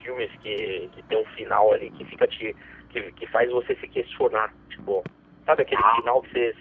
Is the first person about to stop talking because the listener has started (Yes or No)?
No